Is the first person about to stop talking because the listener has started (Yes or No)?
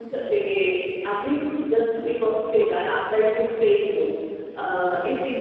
No